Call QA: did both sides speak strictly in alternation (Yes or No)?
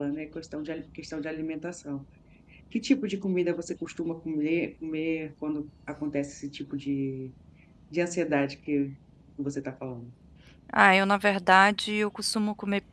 Yes